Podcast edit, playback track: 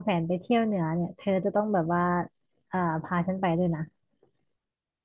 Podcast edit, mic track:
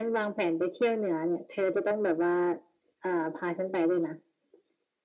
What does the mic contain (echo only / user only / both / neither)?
echo only